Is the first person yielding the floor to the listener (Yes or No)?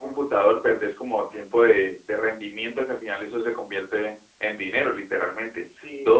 No